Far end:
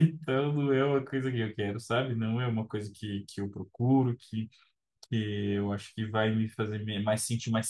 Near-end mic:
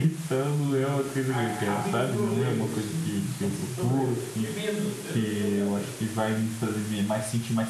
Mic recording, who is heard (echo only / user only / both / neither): both